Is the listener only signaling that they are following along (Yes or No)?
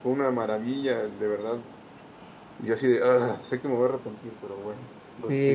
No